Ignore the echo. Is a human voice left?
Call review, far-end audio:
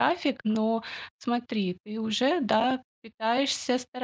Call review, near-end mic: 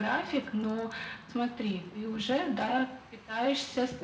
No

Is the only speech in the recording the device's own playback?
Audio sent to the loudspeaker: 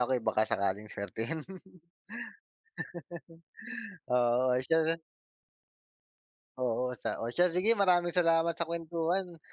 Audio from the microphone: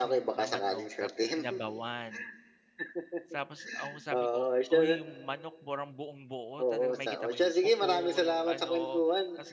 No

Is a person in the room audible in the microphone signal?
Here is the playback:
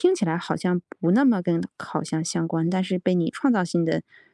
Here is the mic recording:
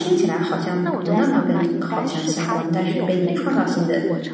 Yes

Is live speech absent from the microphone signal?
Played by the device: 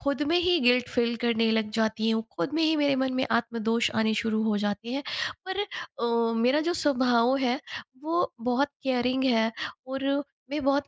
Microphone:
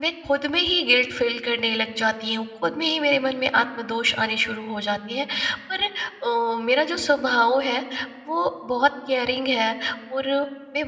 Yes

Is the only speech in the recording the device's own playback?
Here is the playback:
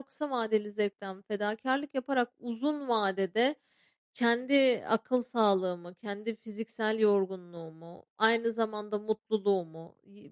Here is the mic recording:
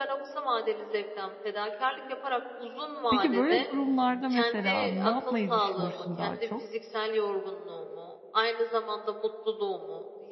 No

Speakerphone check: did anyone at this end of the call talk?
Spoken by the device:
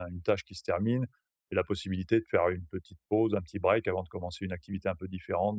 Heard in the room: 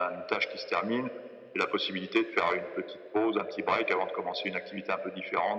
No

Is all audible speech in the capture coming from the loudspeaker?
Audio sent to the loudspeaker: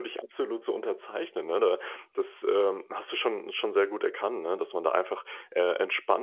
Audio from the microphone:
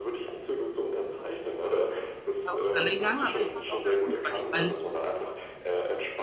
No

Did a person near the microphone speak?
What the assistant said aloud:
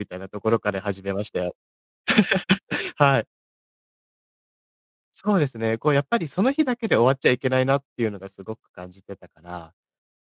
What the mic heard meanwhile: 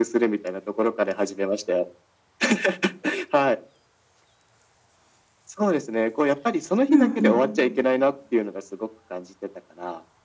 Yes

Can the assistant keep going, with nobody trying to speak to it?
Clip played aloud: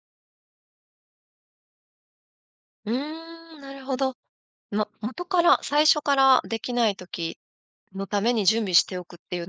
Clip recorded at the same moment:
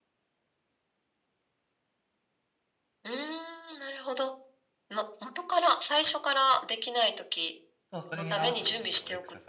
No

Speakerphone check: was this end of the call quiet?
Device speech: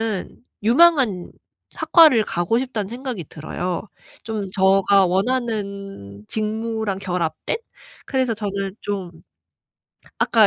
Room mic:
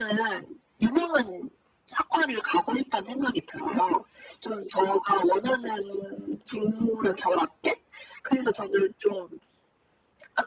Yes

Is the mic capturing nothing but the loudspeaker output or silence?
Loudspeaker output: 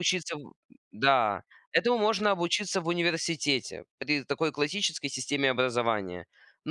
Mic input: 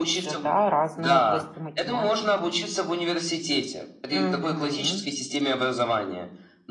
No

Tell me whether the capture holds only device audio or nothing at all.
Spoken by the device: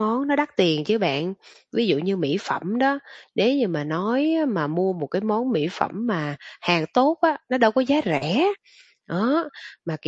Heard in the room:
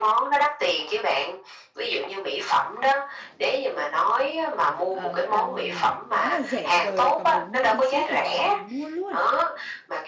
No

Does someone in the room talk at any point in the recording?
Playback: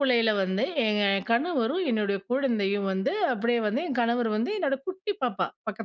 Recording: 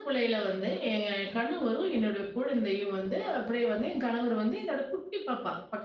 No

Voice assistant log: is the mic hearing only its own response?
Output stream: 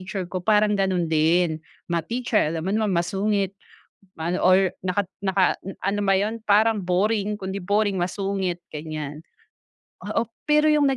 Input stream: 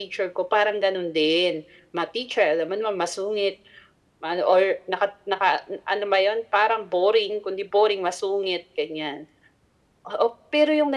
Yes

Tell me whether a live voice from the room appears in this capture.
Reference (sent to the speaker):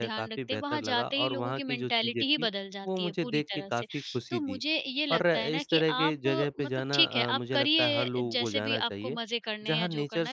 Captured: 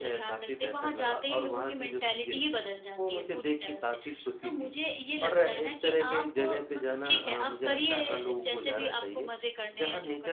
No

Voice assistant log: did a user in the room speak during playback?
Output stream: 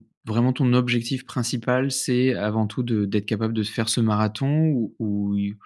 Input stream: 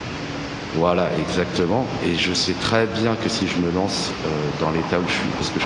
Yes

